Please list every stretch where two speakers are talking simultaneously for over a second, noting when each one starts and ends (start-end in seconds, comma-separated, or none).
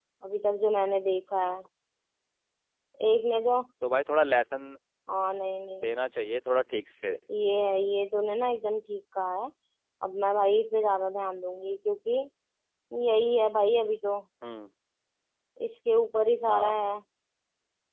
none